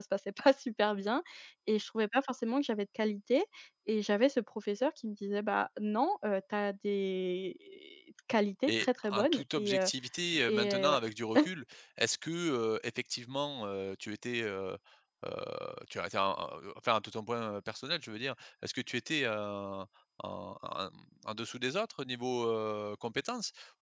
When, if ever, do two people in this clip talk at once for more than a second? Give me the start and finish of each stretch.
8.7-9.9

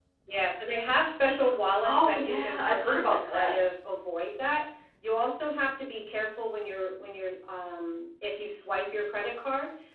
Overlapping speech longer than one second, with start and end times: 1.9-3.5

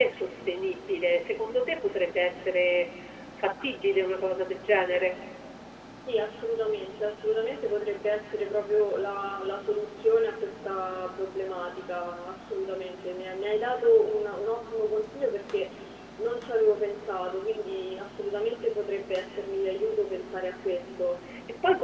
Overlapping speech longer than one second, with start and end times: none

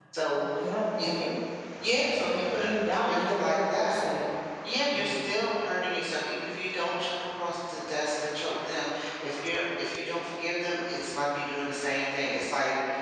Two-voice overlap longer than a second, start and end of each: 2.3-4.0

